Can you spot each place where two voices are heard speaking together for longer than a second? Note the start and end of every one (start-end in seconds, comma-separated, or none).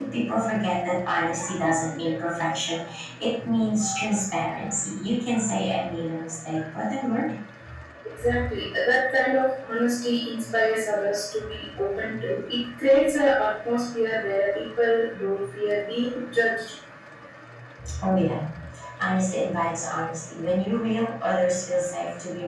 none